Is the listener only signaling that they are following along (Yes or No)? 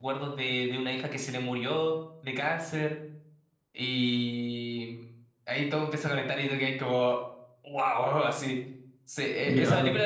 Yes